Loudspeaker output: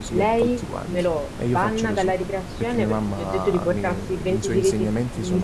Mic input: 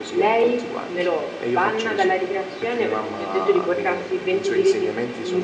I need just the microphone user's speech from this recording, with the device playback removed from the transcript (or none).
none